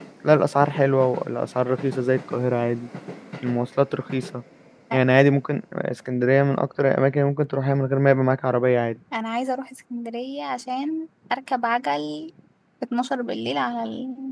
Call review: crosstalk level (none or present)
none